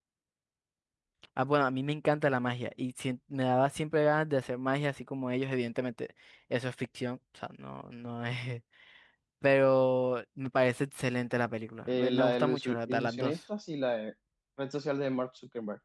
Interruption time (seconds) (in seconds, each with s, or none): 11.9 s